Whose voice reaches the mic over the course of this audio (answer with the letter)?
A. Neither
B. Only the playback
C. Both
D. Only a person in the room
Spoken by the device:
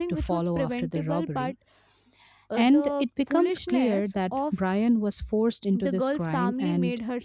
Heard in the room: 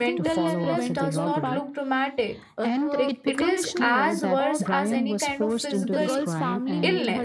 C